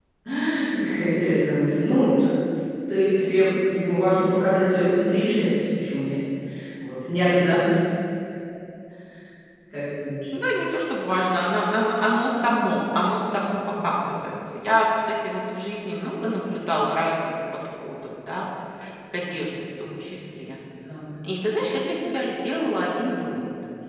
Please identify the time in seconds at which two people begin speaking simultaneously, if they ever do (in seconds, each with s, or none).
none